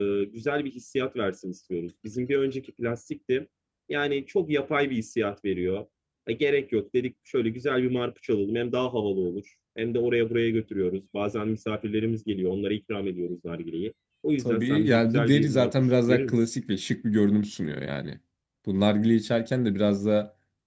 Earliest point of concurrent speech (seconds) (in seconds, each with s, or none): 14.4 s